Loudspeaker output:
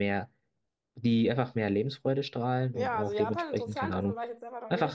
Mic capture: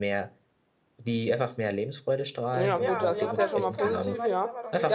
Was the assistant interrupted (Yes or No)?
Yes